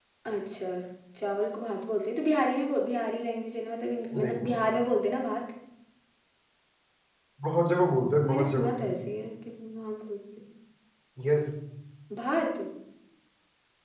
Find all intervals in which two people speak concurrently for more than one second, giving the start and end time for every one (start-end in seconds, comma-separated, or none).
none